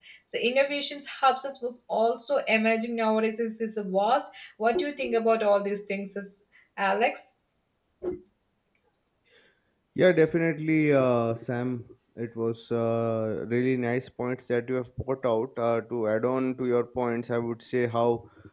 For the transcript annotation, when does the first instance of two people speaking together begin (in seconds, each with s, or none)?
none